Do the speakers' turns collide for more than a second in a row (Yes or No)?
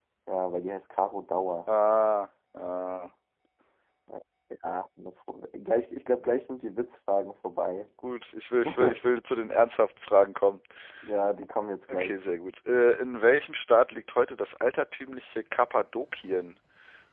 No